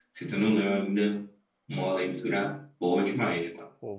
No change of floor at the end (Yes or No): No